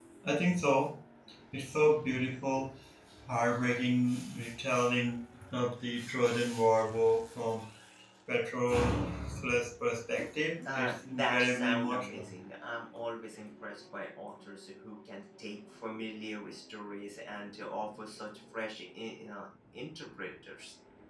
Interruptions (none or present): present